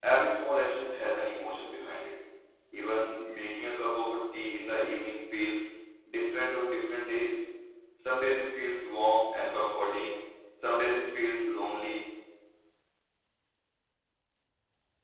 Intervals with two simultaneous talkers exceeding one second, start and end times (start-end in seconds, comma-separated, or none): none